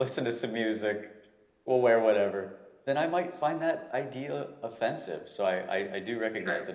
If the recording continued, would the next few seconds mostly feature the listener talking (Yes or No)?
No